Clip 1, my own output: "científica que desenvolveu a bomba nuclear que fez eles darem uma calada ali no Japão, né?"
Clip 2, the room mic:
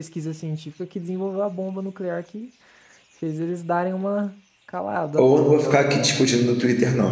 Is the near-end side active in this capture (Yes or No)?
Yes